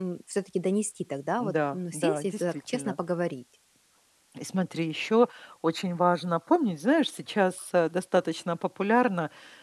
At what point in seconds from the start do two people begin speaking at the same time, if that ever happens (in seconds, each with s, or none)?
1.4 s